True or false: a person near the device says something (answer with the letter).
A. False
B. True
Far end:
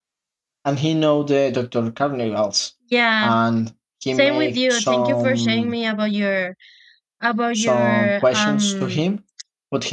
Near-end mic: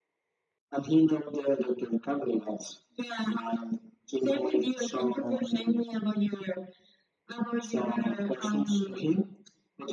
A